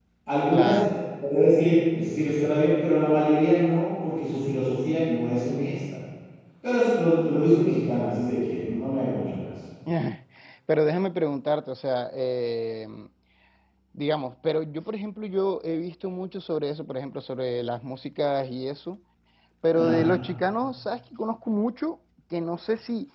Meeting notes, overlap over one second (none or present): none